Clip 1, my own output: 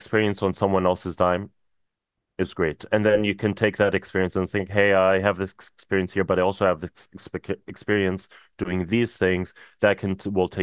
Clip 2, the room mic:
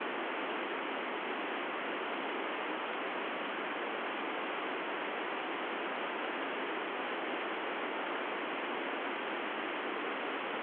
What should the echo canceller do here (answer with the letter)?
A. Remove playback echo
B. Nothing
B